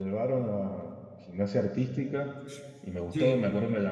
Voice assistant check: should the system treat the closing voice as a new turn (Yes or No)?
No